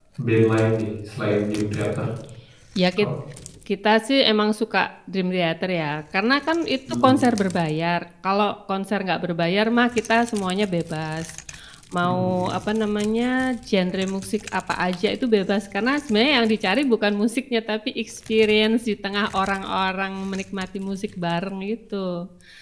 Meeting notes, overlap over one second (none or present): none